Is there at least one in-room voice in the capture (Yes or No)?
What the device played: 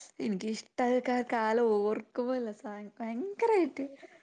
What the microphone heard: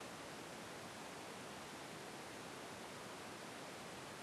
No